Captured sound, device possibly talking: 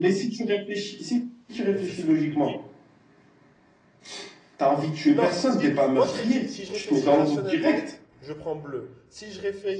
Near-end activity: present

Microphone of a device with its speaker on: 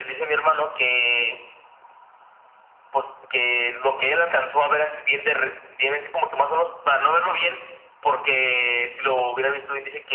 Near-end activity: none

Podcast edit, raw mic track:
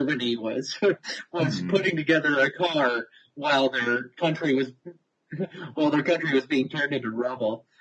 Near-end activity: present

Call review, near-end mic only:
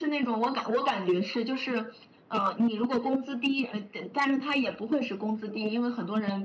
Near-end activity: none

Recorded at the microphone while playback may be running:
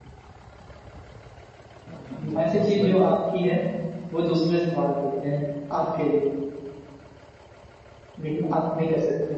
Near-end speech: present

